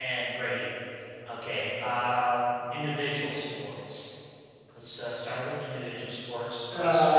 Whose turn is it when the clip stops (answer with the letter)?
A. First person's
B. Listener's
B